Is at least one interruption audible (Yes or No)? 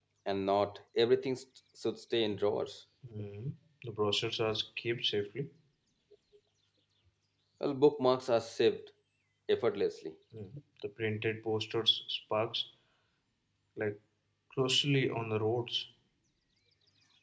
No